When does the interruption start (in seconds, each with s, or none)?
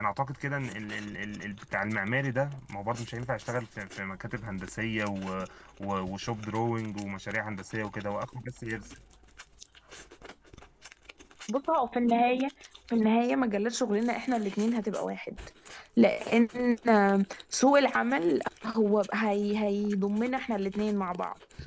none